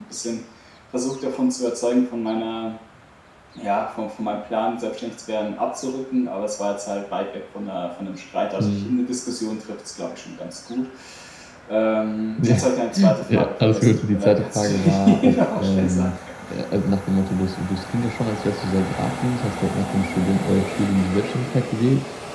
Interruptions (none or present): present